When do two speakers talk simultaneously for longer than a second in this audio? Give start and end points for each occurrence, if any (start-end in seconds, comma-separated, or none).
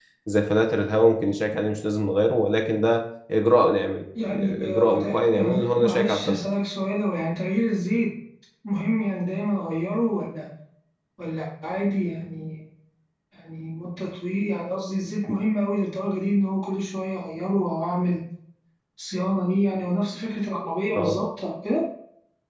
4.3-6.4